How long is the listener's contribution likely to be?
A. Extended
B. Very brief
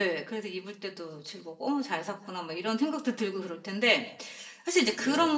B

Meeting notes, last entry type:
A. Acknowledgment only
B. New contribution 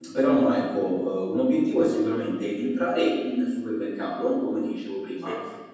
A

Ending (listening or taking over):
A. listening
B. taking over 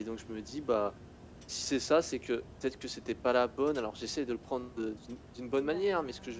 A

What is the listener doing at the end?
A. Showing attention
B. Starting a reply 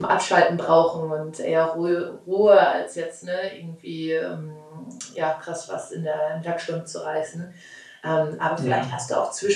A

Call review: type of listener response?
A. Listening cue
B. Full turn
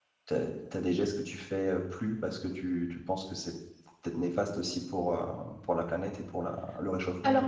B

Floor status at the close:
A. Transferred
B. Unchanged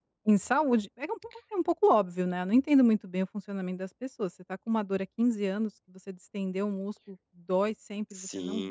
A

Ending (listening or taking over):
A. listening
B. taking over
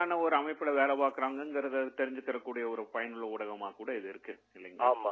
B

